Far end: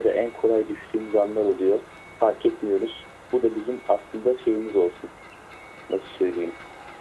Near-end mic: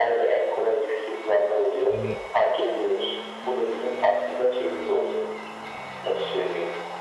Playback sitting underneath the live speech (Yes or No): No